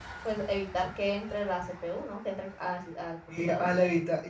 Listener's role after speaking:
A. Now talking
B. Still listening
A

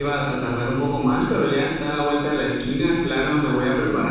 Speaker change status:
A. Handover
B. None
B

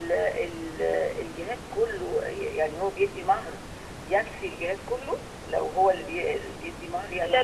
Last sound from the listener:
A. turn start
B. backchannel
A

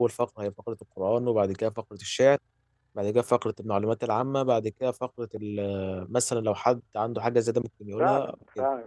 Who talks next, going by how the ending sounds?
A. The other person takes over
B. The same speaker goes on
A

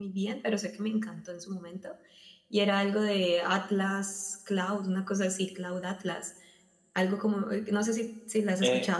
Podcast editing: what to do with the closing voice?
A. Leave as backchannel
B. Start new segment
B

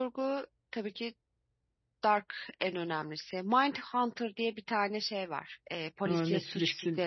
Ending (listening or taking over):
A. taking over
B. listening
A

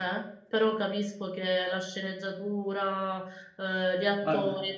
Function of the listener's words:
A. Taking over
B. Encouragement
A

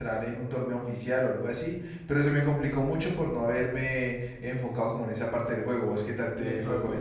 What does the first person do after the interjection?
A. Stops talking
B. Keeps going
A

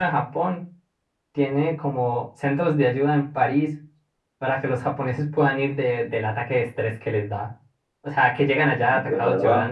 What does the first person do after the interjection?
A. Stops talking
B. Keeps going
B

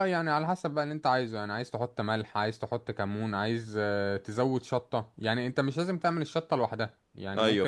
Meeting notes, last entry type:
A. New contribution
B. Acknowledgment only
B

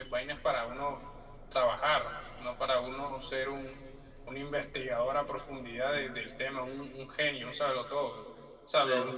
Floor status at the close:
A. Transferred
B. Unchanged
B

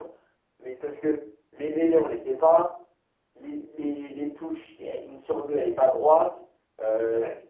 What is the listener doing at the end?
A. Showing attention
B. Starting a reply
A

